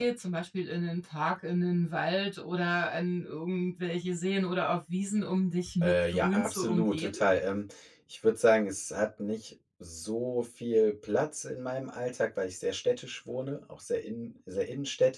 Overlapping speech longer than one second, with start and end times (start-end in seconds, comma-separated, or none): 5.8-7.2